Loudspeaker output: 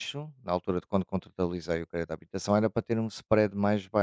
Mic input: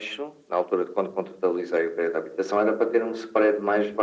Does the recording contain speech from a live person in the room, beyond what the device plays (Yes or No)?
No